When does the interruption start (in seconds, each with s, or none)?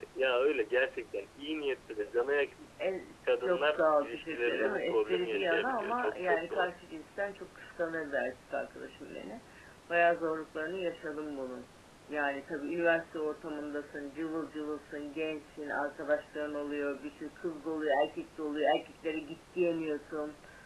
3.4 s